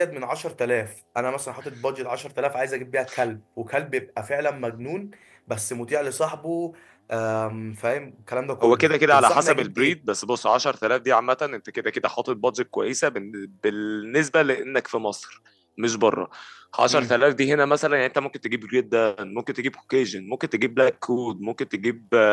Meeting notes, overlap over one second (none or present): present